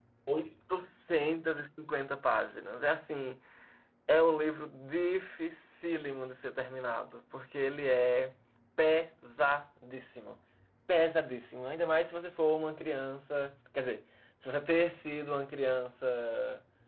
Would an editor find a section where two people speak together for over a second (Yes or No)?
No